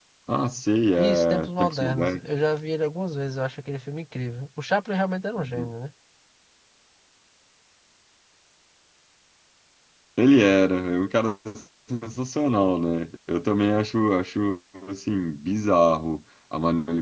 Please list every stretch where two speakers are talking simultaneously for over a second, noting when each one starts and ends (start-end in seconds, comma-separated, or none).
1.0-2.2